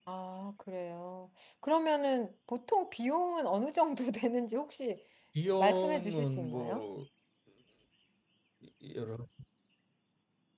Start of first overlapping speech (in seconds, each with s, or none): 5.6 s